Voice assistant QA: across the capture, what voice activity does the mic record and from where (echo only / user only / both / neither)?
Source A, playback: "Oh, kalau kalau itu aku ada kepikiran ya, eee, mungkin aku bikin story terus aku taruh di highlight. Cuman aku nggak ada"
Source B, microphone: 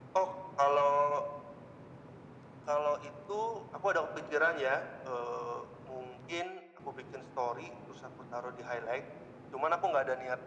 echo only